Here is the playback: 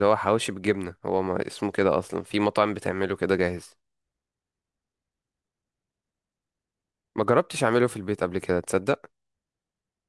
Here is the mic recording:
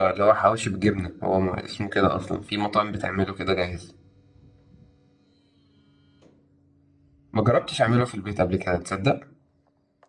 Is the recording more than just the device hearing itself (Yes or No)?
No